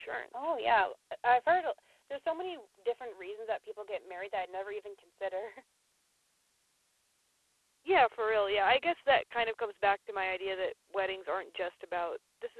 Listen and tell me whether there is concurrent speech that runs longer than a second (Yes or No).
No